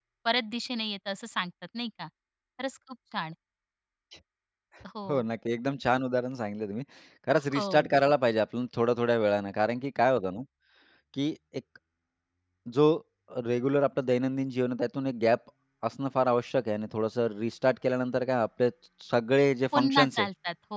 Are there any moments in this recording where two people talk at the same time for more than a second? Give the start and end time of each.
none

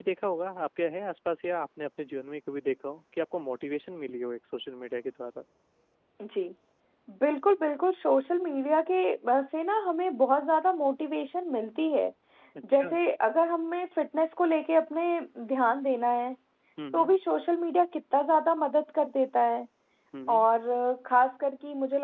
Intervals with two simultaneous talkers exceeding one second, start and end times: none

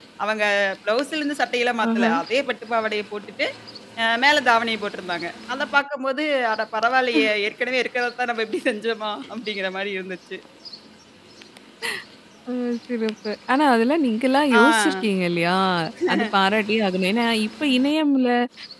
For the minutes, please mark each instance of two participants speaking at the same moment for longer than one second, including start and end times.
none

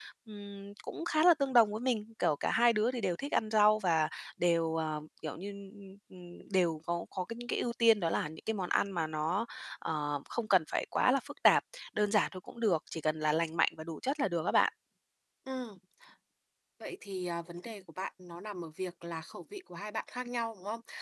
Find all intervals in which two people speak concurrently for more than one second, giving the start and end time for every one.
none

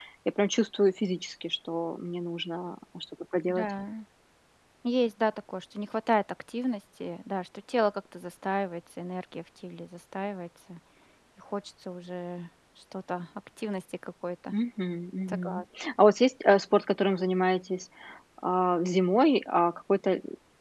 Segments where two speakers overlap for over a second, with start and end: none

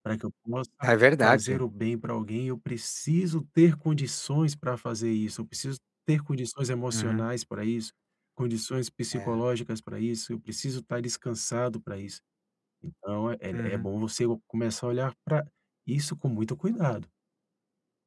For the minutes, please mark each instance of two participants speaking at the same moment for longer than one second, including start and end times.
none

